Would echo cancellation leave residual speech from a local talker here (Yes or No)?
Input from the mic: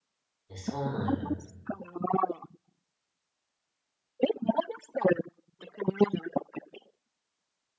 Yes